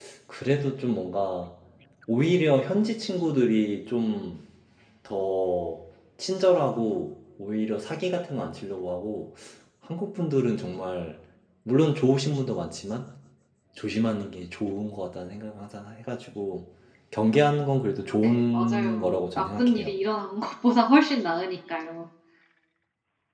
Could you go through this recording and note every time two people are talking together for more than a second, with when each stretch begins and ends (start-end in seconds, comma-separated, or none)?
18.2-20.0